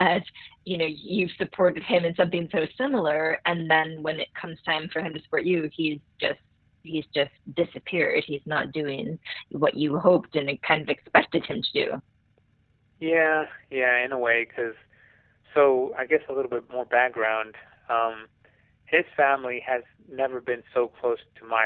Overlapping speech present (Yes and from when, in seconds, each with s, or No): No